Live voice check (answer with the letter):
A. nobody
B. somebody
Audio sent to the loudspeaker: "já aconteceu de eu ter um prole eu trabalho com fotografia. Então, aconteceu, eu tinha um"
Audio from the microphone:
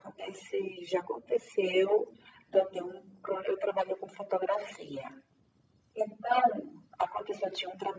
A